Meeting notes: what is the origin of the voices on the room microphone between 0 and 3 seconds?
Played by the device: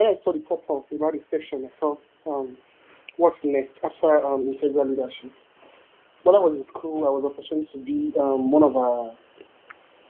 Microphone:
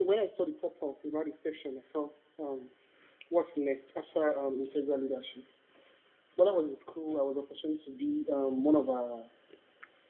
echo only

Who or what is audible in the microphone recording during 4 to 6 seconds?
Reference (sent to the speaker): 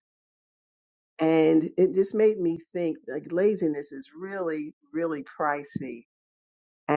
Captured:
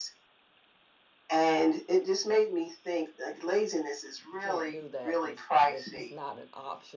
both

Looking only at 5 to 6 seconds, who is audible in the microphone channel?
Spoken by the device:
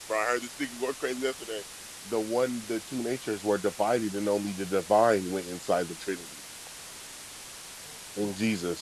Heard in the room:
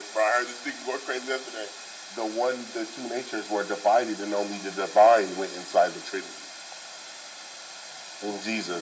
echo only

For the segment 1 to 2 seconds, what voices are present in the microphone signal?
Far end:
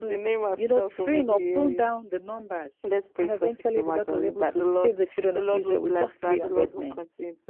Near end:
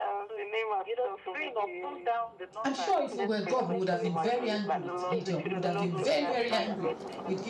echo only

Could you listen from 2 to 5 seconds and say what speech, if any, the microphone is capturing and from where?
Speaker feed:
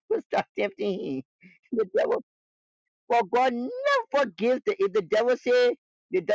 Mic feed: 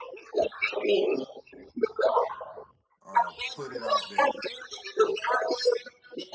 both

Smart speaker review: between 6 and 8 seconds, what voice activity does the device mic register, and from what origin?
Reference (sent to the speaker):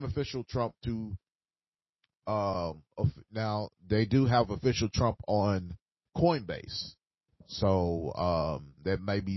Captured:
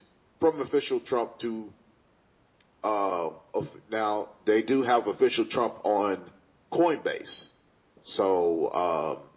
echo only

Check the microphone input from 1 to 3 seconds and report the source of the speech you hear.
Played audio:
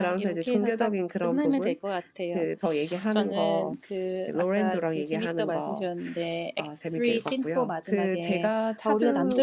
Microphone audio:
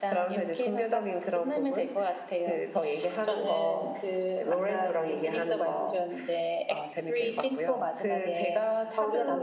echo only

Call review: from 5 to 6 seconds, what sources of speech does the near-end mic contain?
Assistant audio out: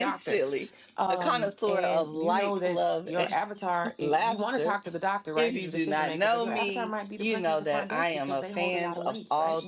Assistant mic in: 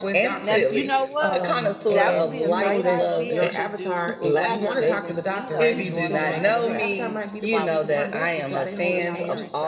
both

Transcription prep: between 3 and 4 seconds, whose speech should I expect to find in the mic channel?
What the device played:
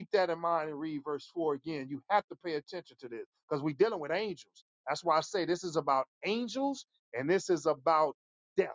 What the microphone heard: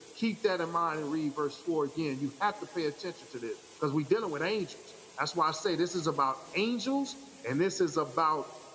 echo only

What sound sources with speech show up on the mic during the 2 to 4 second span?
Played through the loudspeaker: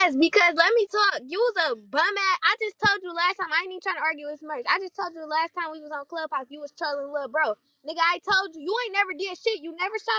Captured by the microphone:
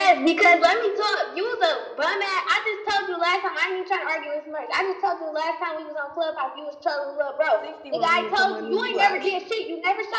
echo only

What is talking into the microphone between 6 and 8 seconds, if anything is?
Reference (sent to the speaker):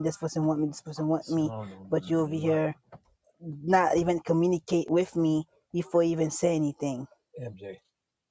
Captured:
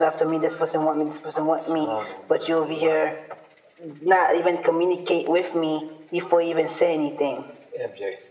echo only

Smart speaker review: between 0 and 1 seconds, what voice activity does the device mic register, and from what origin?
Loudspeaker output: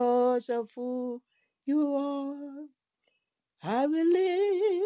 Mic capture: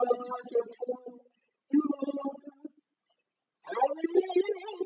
echo only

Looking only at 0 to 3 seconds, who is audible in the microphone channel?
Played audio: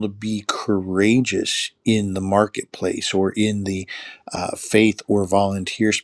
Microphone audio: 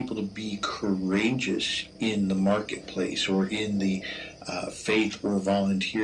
echo only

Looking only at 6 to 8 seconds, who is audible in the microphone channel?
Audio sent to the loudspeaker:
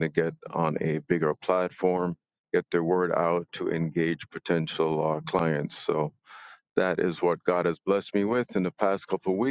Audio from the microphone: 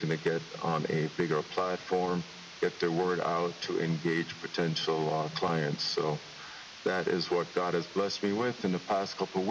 echo only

